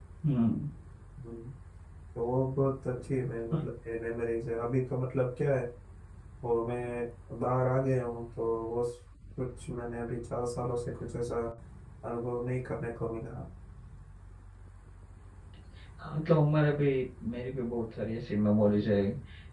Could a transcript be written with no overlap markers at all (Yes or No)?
Yes